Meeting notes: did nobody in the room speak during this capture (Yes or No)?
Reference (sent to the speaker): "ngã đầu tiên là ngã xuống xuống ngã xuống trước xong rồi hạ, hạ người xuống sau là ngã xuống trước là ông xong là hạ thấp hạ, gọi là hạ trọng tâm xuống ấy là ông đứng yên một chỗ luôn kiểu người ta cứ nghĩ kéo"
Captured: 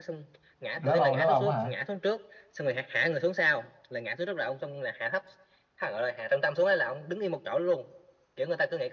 No